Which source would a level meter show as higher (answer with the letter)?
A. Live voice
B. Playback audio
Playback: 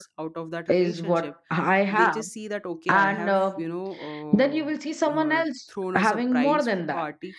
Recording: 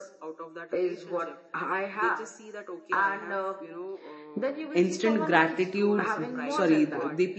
A